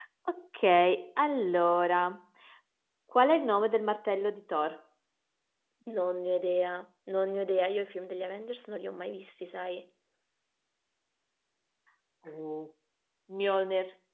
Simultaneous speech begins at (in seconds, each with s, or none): none